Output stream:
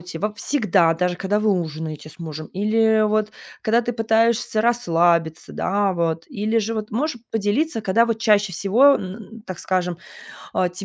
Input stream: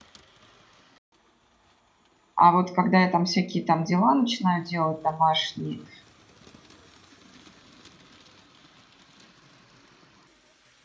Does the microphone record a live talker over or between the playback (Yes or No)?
Yes